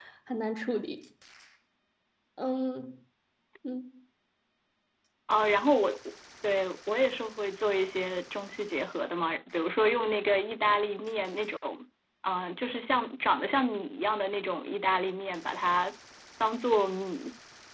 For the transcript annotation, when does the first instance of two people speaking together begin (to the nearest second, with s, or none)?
none